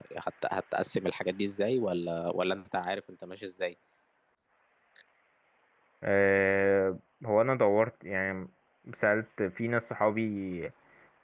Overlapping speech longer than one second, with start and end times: none

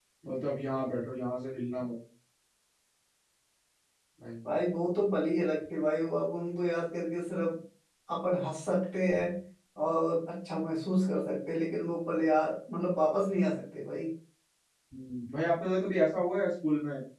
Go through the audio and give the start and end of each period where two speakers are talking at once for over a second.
none

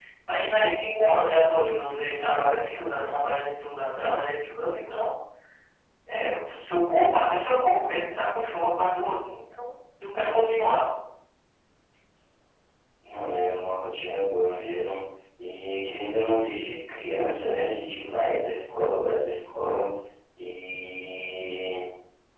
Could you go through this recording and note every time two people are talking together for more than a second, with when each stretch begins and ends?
none

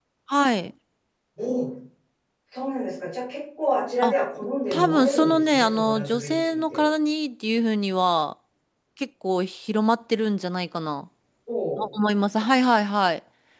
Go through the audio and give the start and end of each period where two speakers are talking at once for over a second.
4.7-6.8

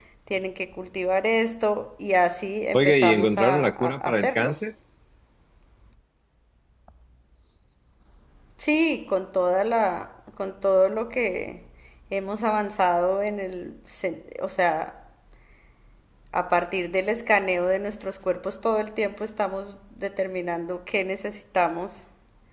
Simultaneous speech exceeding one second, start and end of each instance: 2.7-4.5

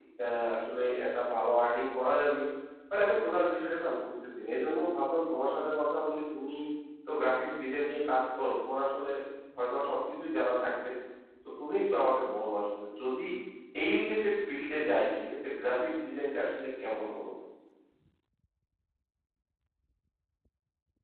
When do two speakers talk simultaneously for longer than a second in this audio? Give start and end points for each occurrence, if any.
none

